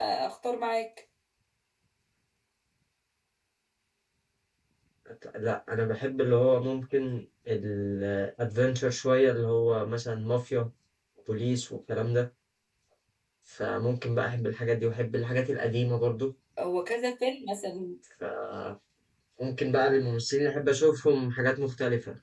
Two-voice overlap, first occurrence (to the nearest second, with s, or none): none